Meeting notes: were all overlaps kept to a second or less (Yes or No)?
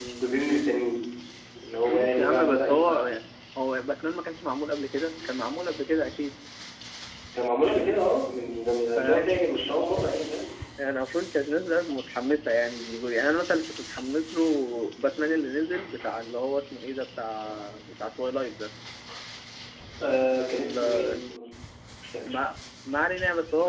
No